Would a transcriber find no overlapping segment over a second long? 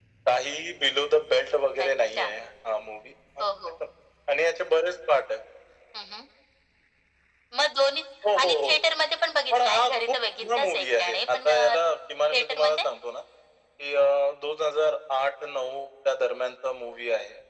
No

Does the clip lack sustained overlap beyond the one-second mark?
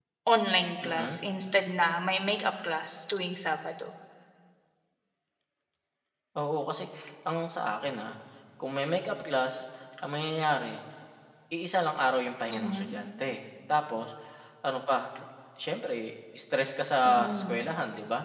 Yes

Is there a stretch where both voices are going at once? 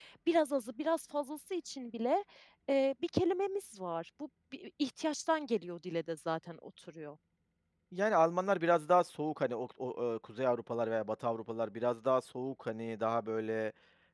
No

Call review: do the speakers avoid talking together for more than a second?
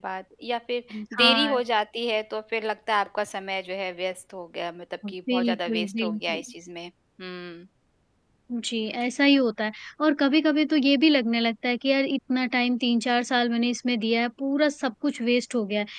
No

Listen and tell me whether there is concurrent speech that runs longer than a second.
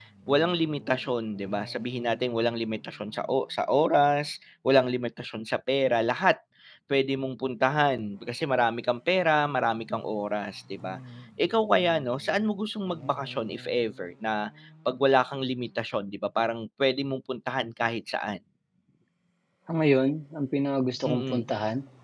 No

